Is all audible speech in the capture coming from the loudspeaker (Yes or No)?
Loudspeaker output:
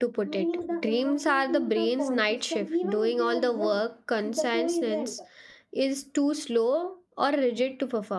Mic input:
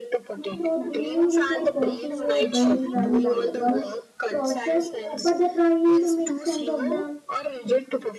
No